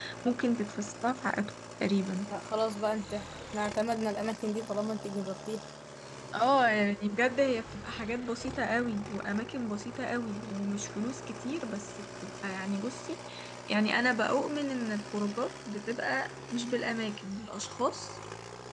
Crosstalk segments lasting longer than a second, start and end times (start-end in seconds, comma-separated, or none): none